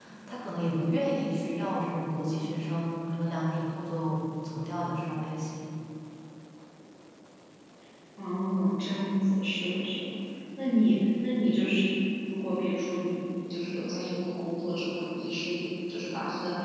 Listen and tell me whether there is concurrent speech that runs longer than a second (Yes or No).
No